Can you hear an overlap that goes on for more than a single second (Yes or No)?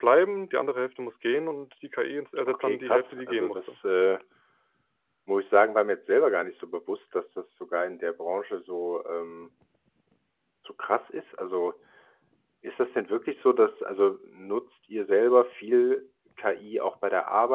Yes